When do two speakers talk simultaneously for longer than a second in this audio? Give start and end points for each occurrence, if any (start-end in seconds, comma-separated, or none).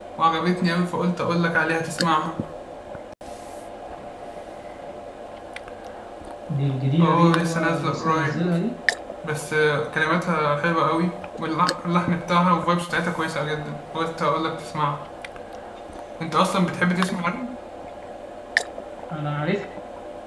7.0-8.4